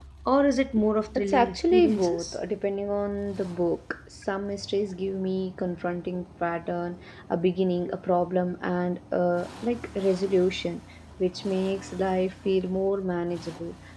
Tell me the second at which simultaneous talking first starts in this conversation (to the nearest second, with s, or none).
1 s